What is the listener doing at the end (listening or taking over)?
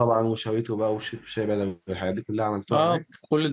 taking over